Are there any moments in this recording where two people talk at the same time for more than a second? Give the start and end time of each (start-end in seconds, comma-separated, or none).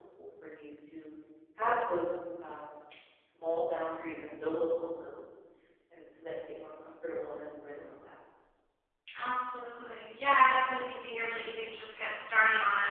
none